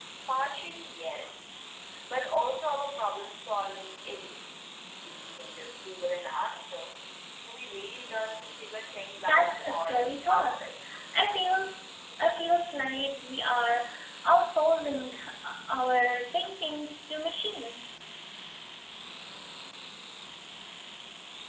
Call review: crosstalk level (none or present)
present